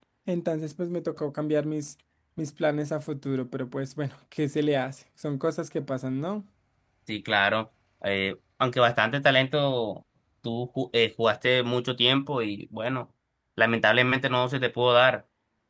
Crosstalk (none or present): none